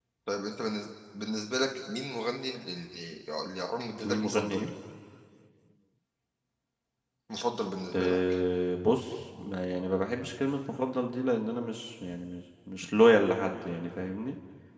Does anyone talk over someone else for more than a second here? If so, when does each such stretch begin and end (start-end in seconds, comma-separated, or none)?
none